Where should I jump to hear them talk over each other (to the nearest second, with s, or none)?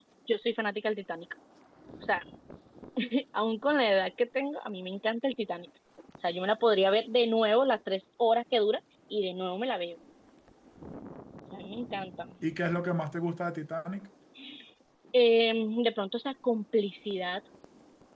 none